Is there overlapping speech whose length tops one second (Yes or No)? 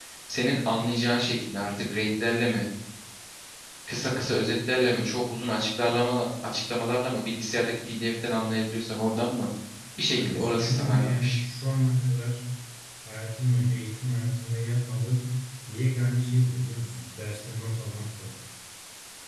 Yes